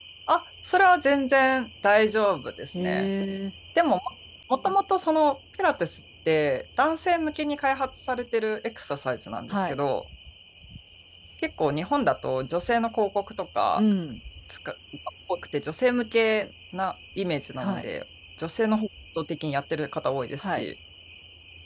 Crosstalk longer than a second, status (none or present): none